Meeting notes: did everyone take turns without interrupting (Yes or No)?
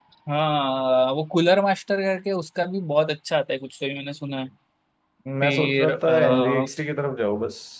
No